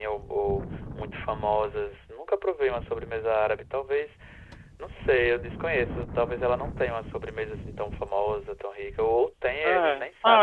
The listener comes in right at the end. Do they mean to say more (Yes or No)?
Yes